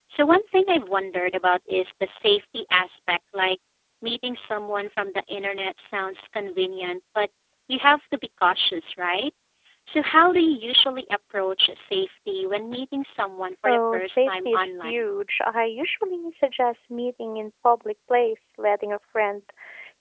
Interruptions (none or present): present